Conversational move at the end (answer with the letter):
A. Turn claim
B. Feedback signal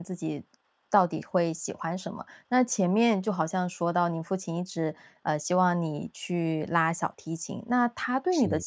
B